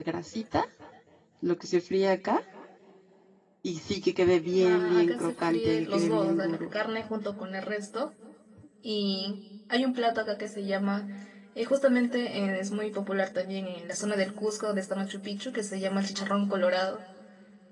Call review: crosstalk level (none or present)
present